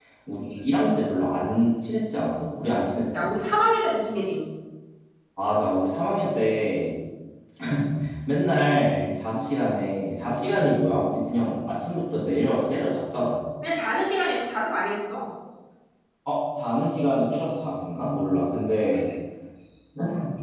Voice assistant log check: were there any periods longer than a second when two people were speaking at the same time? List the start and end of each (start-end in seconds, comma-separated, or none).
none